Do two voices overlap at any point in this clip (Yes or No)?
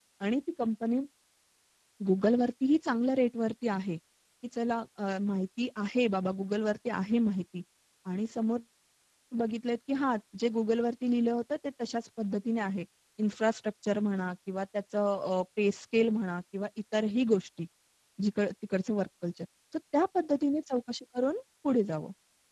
No